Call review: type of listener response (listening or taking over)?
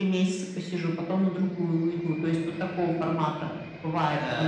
taking over